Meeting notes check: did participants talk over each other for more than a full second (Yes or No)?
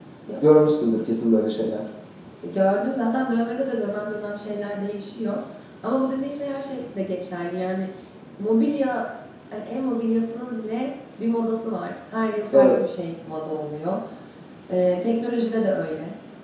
No